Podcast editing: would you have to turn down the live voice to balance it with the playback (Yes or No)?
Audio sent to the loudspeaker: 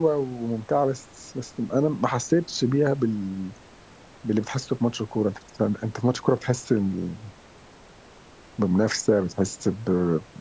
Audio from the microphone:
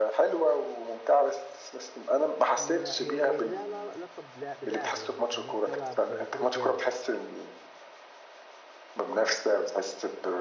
No